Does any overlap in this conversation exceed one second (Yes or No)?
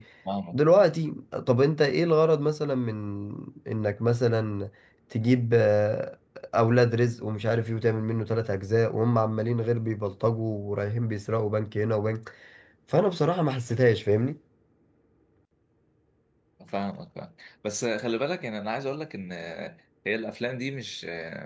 No